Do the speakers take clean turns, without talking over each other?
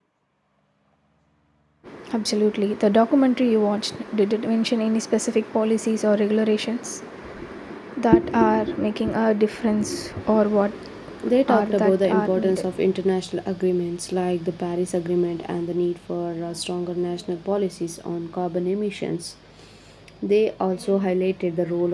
No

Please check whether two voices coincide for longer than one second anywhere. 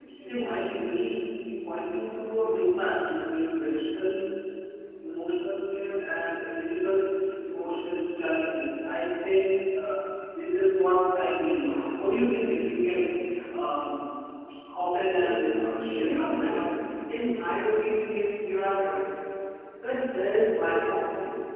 Yes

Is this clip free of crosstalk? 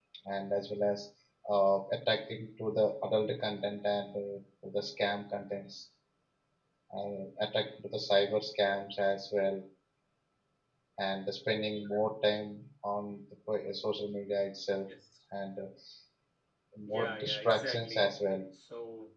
No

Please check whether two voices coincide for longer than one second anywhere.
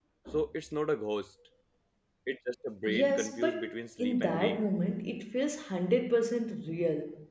Yes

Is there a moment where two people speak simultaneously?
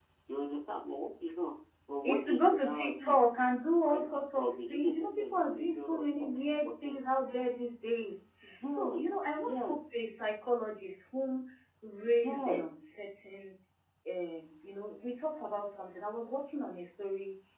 Yes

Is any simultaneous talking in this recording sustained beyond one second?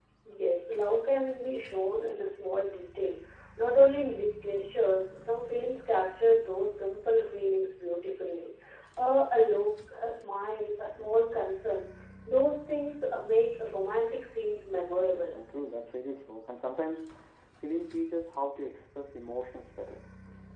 No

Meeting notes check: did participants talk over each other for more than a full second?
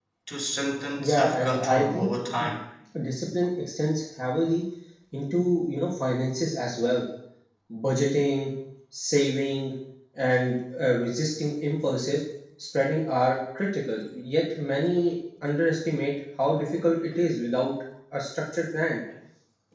Yes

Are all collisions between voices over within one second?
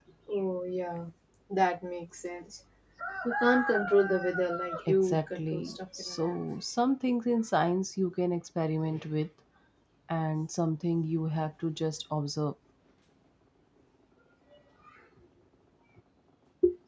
No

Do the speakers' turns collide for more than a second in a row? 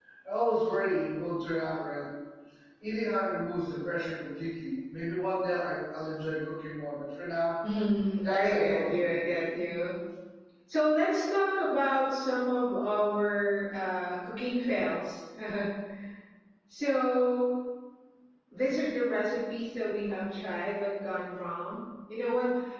Yes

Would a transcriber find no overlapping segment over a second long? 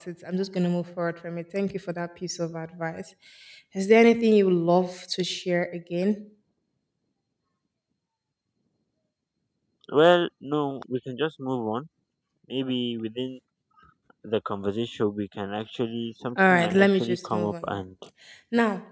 No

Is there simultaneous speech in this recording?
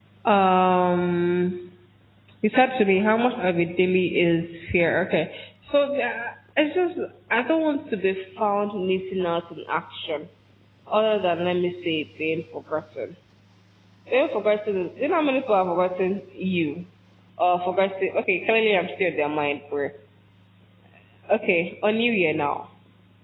No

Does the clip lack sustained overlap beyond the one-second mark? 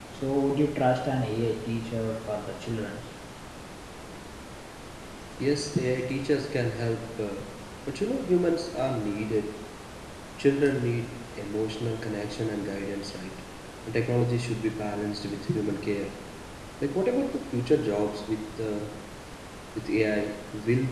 Yes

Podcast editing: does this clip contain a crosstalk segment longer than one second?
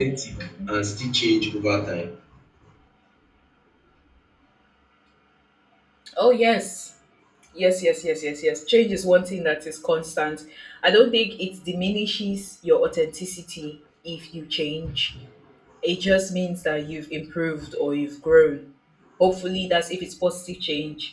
No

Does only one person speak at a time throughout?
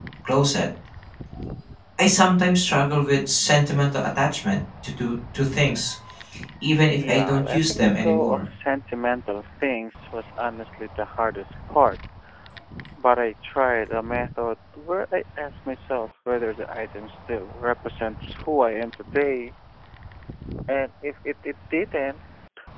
No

